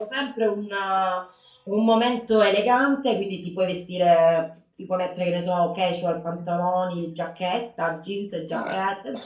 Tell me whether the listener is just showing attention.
No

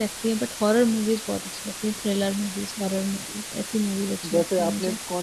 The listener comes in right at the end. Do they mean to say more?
Yes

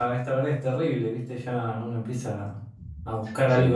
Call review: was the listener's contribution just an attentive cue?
Yes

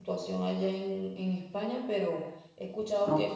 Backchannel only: Yes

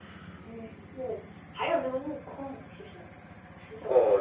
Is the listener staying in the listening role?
No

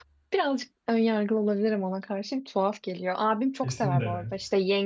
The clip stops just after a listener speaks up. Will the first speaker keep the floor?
Yes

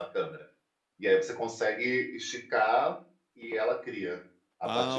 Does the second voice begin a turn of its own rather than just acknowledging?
Yes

